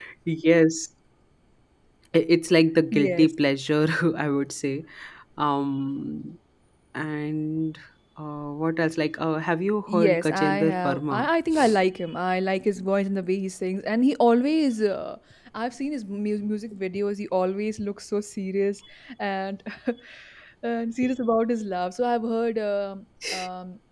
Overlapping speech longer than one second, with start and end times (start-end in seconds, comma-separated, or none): 9.9-11.2